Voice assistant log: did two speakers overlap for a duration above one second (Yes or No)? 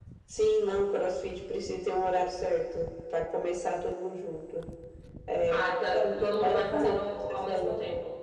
Yes